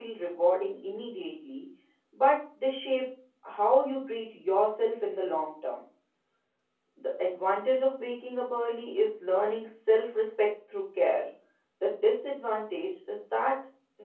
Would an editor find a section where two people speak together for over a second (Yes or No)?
No